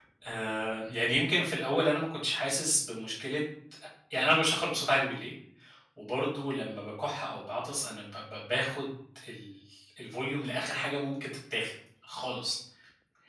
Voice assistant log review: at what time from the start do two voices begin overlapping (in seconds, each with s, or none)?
none